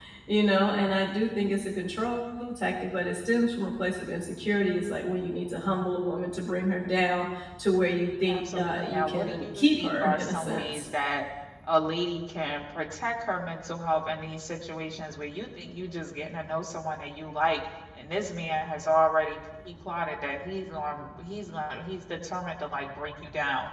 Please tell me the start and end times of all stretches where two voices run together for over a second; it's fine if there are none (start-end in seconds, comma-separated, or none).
8.3-10.8